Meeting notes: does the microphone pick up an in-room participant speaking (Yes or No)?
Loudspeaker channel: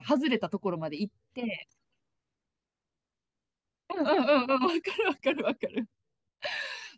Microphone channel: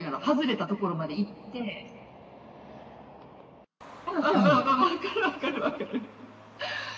Yes